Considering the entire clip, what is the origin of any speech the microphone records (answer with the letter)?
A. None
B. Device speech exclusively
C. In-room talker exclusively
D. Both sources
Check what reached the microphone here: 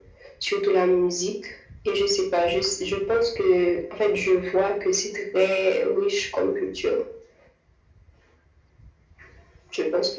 B